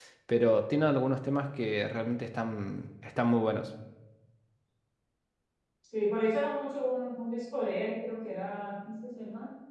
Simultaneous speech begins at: none

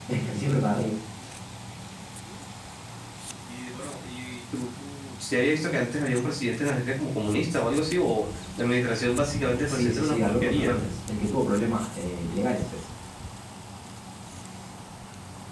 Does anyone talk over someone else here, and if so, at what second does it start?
10 s

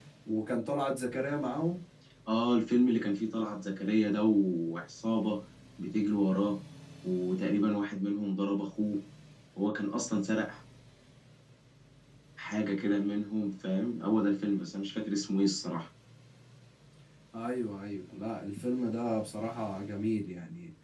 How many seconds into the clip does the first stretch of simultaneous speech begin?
none

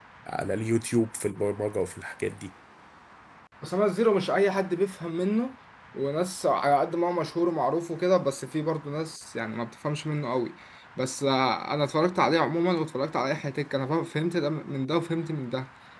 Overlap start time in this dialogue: none

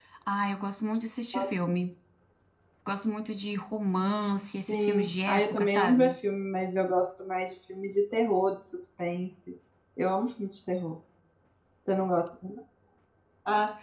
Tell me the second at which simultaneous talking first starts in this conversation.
5 s

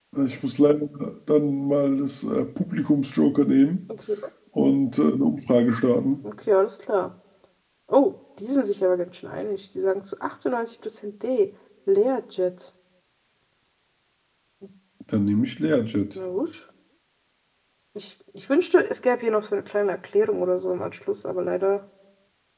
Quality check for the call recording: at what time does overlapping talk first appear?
none

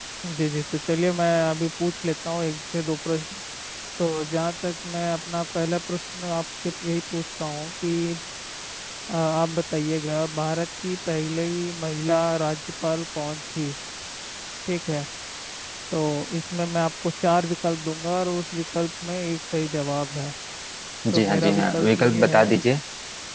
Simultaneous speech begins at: 21 s

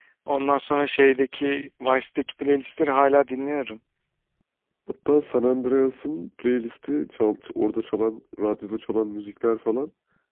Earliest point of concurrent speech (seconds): none

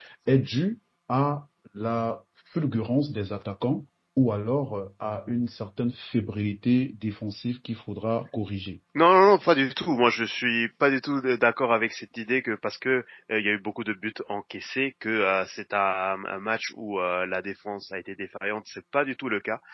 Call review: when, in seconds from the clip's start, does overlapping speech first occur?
none

